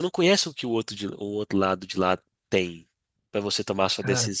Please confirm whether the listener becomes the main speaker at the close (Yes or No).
No